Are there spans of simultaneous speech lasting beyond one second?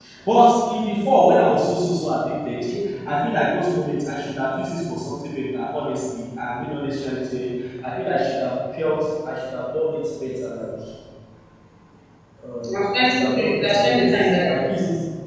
Yes, from 12.6 s

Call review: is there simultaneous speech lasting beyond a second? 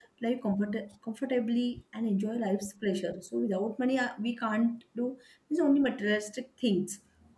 No

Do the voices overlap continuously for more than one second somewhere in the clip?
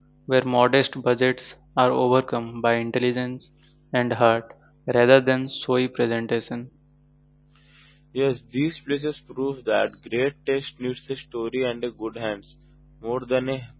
No

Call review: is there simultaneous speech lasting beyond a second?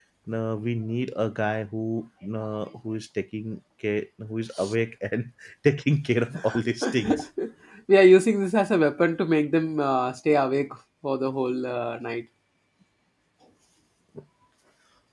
No

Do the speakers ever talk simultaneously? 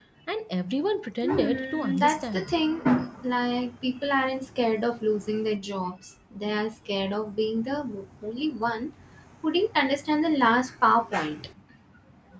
Yes, from 1.2 s

